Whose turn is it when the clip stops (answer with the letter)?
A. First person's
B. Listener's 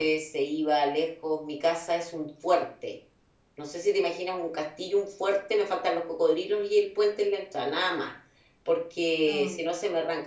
A